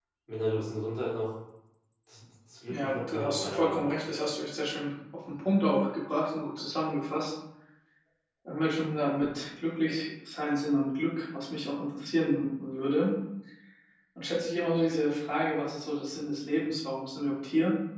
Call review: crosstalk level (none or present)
present